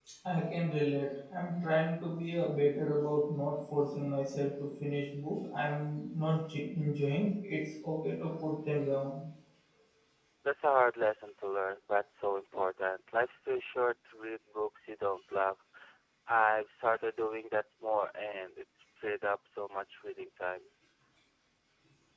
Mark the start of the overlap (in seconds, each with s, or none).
none